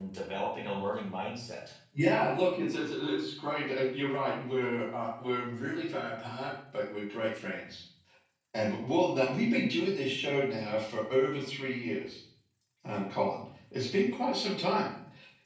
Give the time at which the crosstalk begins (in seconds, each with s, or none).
none